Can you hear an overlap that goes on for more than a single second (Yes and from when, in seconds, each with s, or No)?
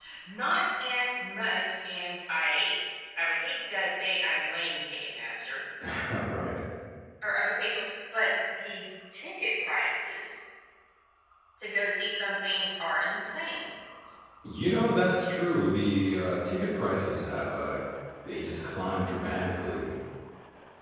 No